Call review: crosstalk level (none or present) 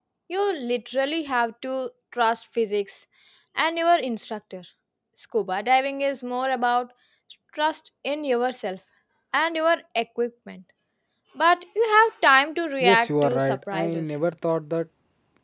present